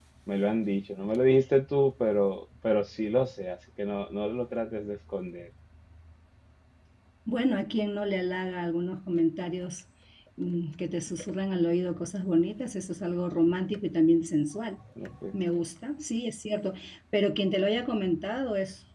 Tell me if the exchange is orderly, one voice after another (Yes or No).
Yes